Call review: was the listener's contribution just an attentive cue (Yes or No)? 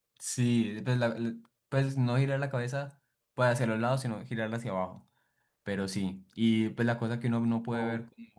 Yes